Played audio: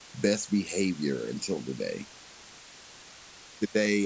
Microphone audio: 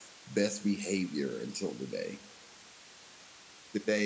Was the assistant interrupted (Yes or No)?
No